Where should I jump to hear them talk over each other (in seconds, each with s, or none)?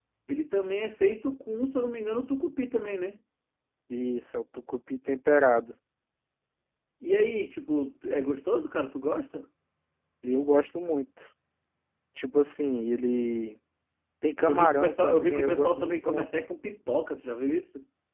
14.5 s